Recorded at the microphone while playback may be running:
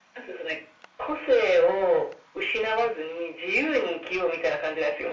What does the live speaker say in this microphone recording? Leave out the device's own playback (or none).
none